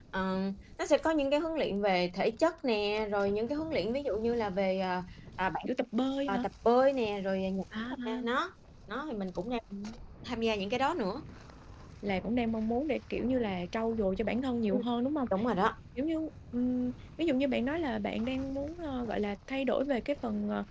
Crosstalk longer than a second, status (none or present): none